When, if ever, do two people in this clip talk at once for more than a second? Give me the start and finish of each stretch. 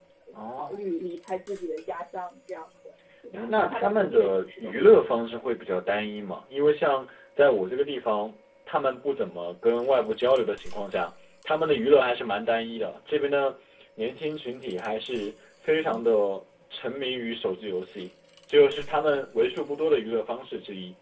3.3-5.4

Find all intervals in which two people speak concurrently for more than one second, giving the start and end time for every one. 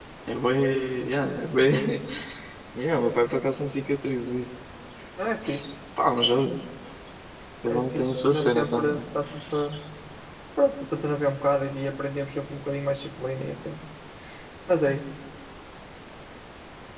7.7-9.0

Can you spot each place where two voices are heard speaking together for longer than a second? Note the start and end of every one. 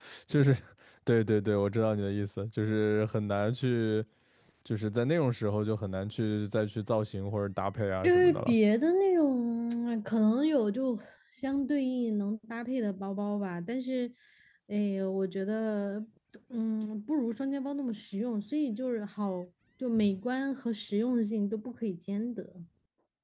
none

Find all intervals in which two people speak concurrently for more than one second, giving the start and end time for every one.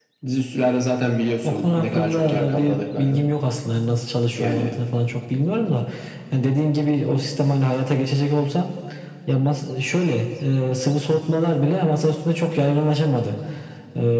1.4-3.2

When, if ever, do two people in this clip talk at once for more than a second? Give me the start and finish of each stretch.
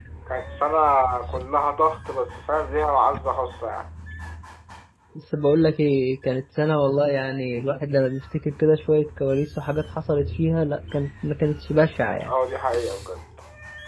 none

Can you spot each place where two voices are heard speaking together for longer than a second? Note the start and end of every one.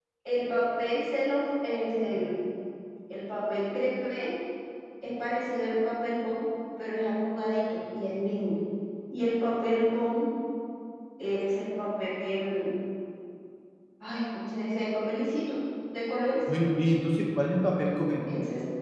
none

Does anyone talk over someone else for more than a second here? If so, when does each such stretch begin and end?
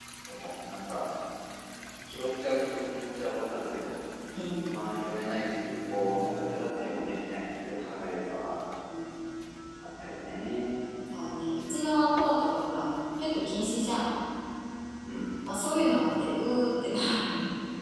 none

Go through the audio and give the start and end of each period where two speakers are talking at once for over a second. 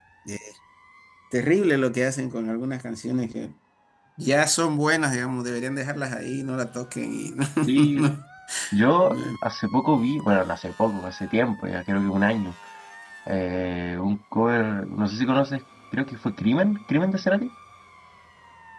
none

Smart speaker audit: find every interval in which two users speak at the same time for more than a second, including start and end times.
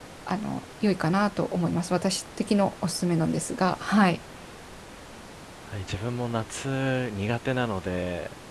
none

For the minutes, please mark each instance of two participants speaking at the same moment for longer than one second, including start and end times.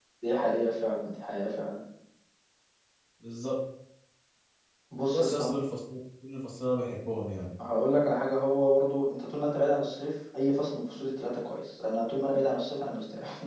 none

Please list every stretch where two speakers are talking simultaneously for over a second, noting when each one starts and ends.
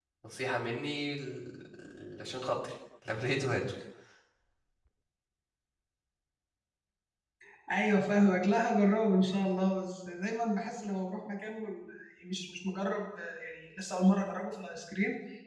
none

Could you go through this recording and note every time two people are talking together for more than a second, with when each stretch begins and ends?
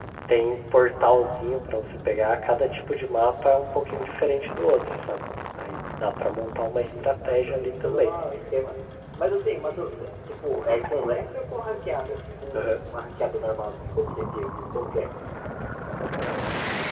6.9-8.1

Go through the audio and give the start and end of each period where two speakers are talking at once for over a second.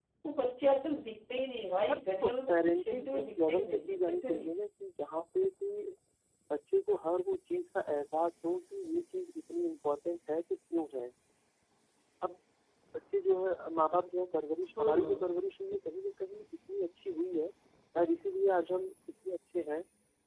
1.9-4.5

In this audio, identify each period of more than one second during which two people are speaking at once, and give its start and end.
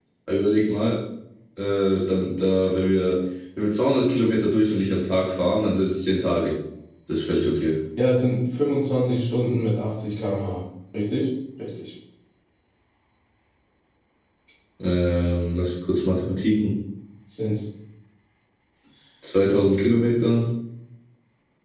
none

